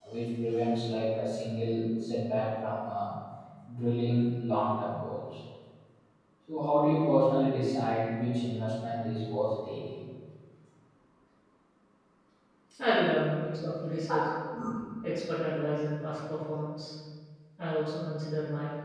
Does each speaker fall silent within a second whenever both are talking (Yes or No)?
Yes